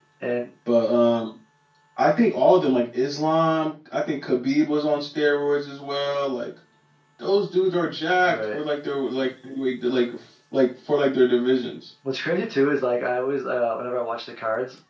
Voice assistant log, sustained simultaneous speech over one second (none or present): none